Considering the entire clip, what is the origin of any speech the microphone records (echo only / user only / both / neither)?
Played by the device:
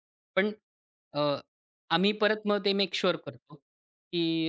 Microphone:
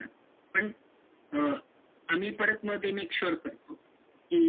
echo only